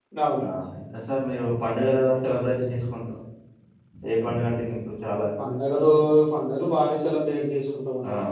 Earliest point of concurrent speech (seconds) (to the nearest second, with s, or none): none